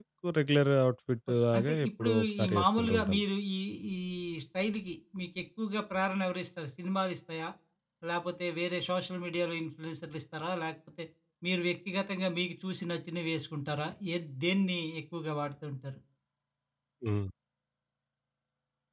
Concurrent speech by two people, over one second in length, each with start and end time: 1.3-3.2

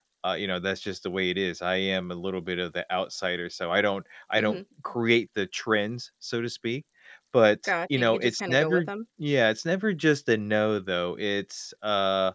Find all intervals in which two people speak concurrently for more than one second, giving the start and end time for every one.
7.7-8.9

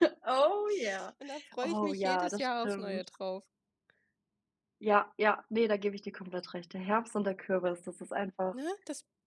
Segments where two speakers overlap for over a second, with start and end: 1.6-3.0

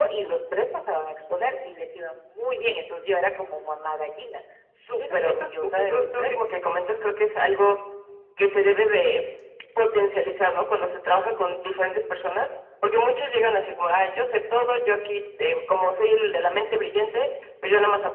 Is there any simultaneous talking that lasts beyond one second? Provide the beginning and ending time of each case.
4.9-6.3

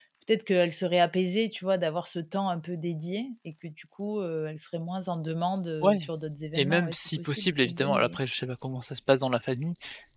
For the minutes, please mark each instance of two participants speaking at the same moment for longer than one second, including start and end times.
6.6-8.2

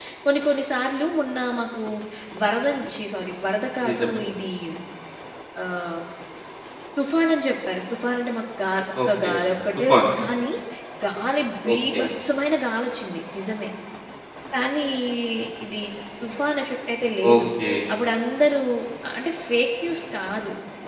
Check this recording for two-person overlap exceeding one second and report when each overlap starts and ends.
none

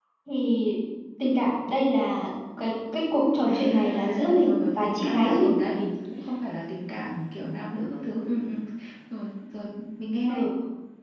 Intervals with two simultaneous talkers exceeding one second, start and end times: 3.5-5.8

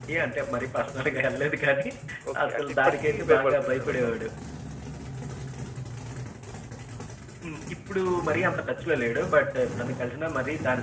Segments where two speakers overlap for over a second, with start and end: 2.5-4.2

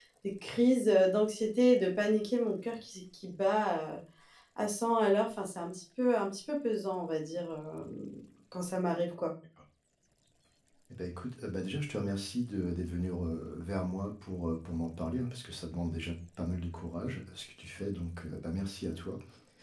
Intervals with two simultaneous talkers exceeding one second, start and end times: none

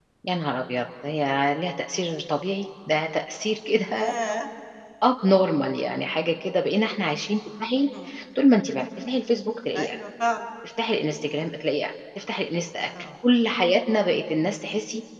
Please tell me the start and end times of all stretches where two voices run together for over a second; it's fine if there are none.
none

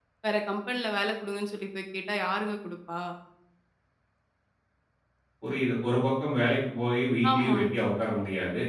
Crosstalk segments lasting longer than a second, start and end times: none

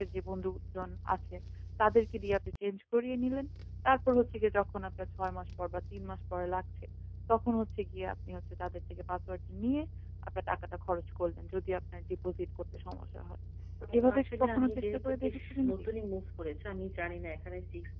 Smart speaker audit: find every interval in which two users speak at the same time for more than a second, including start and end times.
13.8-15.7

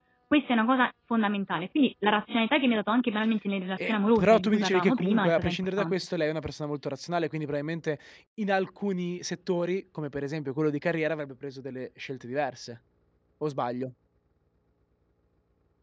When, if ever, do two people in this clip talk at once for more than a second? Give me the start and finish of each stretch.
3.8-5.9

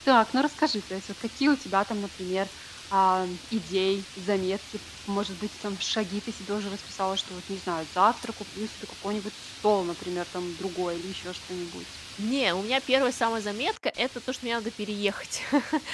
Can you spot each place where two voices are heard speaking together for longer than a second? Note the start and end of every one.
none

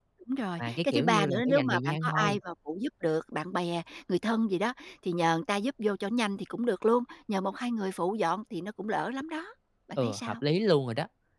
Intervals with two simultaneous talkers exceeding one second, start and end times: 0.6-2.4

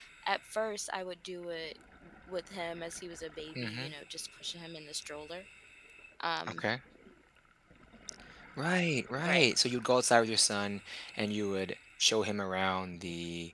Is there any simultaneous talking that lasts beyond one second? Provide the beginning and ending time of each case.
none

